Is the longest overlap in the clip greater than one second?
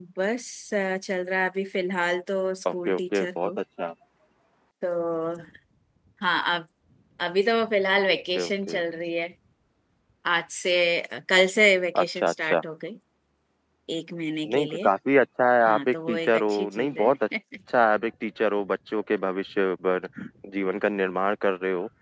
Yes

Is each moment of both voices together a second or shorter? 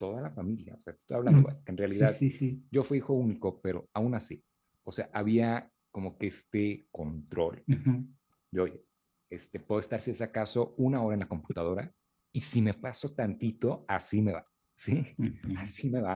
Yes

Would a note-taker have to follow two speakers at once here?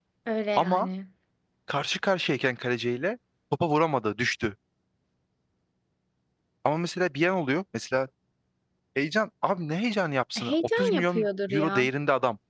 Yes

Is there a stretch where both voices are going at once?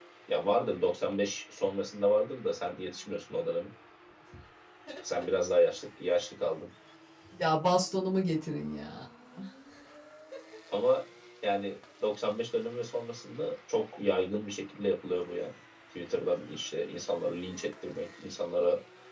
No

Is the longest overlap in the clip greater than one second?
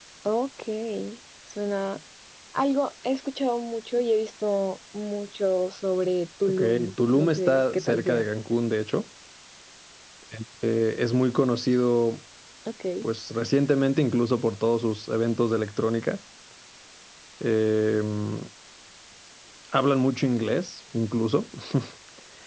Yes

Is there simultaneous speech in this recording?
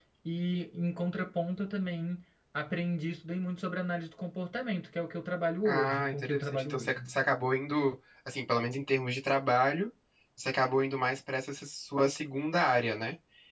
Yes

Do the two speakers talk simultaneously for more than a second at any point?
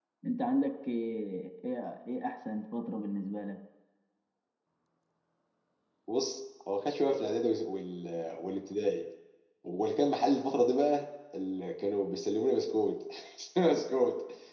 No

